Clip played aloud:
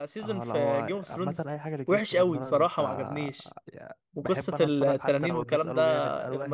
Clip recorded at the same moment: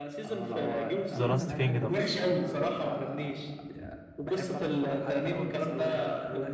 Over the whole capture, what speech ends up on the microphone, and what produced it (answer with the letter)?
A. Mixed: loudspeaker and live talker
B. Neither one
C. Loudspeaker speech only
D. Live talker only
A